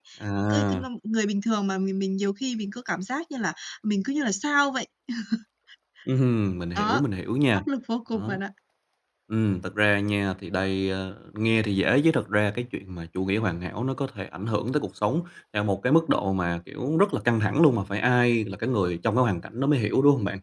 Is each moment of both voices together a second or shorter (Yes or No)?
Yes